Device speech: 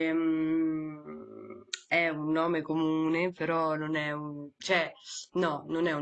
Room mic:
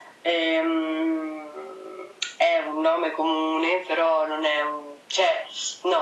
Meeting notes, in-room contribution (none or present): none